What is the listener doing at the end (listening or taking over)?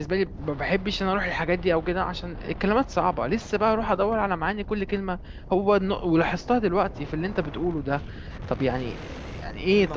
taking over